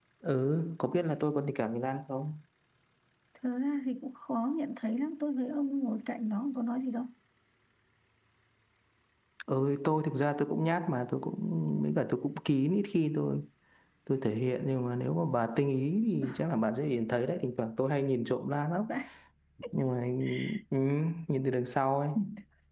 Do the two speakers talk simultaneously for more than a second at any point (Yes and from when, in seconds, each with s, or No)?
No